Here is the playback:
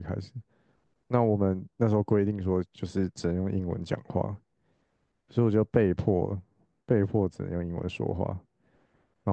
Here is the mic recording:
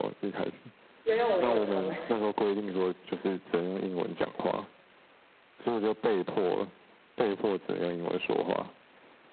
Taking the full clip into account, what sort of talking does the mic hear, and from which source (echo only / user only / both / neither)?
both